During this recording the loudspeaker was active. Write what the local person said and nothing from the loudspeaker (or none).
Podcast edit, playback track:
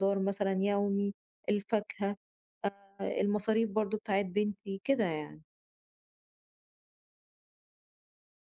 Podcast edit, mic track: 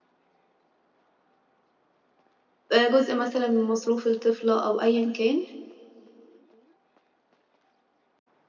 آآ جزء مثلًا من مصروف الطفلة أو أيًا كان،